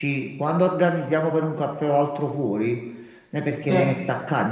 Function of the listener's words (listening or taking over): listening